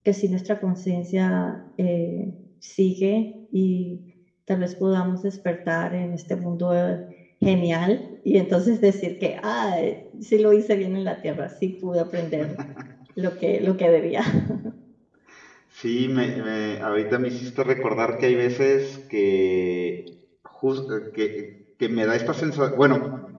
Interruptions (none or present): none